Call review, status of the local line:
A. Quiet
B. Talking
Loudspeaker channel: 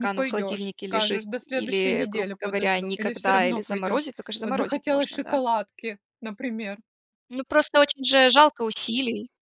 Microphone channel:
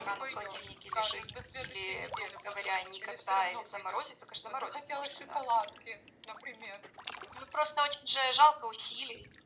A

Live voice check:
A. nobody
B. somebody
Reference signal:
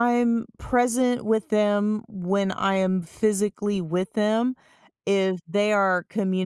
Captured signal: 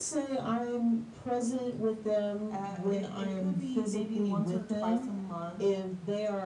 B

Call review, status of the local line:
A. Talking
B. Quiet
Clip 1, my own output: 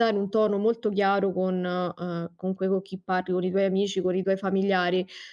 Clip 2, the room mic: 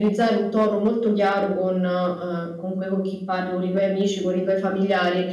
B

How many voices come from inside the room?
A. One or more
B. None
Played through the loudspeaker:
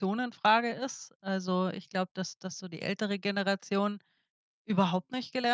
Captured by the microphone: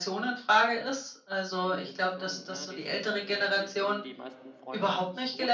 A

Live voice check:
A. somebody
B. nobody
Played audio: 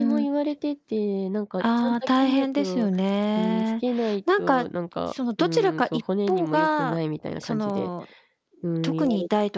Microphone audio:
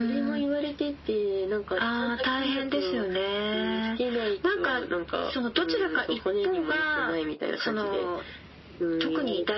B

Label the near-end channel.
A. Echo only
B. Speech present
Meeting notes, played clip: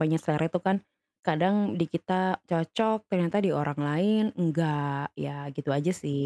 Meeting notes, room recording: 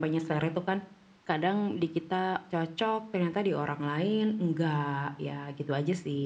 A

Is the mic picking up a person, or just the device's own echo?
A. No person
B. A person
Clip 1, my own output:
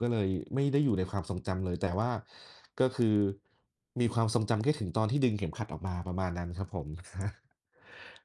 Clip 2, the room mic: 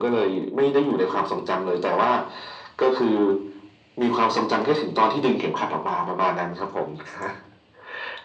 A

